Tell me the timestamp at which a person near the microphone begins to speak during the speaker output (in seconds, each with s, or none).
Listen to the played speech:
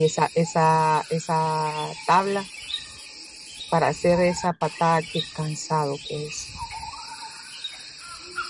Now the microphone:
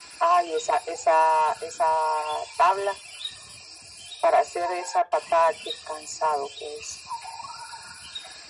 none